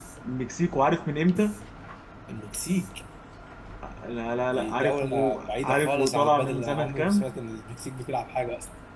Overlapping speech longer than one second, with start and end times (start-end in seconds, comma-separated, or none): 4.5-7.3